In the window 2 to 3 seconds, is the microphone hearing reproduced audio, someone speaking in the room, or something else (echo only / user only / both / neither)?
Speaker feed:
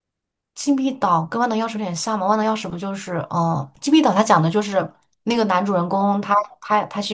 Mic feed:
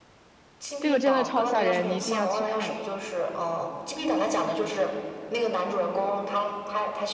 both